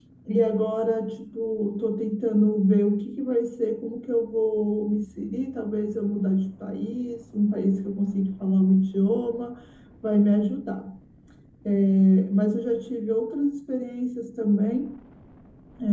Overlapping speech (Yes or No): No